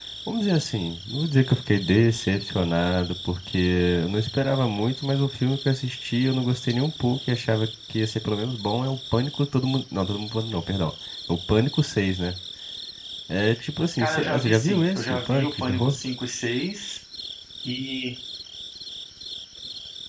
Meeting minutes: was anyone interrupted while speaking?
Yes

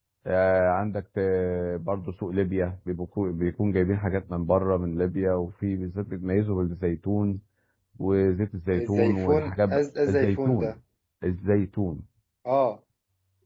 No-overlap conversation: No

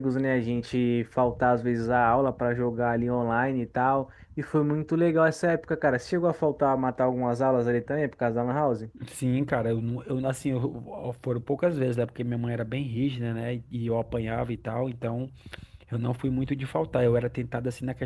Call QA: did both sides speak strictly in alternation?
Yes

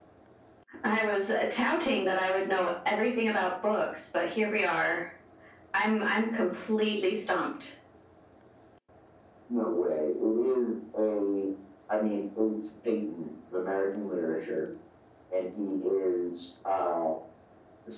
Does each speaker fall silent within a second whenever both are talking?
Yes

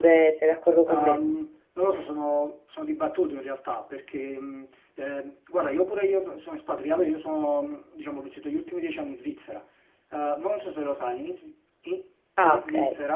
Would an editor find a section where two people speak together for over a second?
No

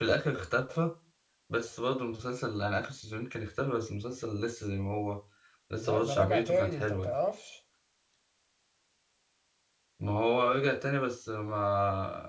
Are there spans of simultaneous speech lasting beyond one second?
Yes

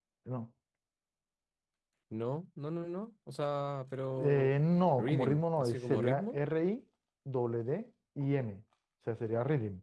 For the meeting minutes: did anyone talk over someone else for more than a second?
Yes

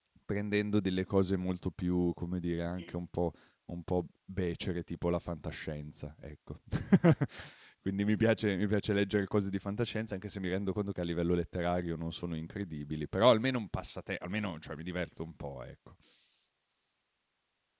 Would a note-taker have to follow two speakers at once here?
No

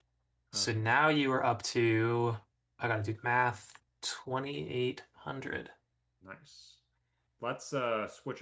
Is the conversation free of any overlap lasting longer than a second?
Yes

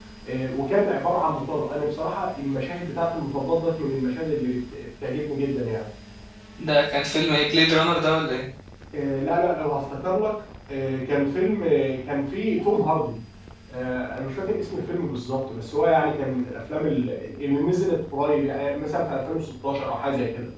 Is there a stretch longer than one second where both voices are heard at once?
No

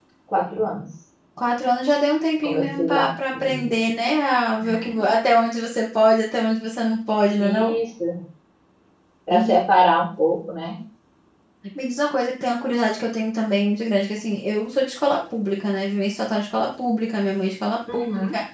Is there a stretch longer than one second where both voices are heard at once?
Yes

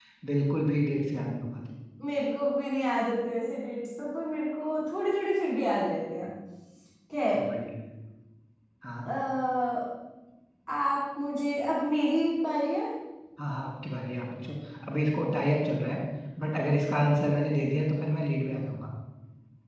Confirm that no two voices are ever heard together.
Yes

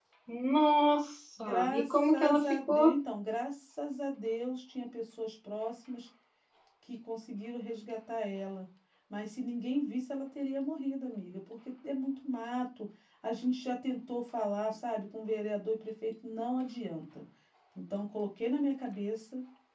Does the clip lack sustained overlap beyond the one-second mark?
No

